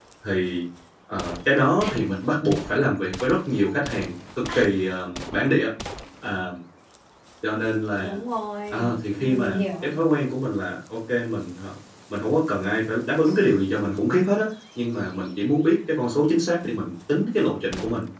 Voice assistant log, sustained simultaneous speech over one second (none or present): present